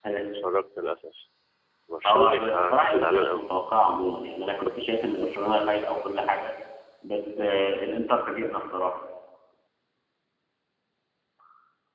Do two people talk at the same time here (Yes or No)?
Yes